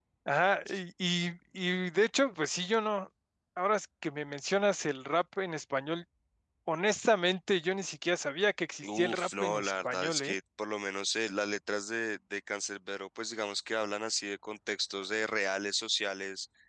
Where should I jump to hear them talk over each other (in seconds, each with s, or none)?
8.8 s